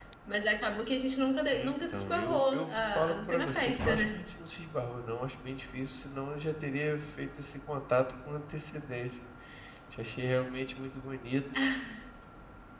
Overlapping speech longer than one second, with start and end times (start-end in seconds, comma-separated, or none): 1.5-4.2